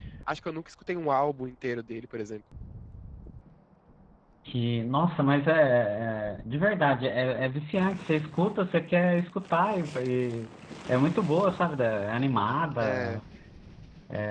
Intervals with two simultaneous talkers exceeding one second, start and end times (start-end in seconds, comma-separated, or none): none